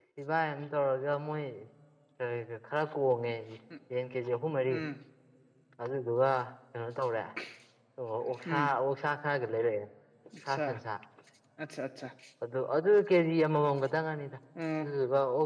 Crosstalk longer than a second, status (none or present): none